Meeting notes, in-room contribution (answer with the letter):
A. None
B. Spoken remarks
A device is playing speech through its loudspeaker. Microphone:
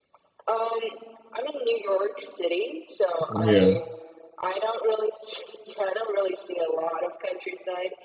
B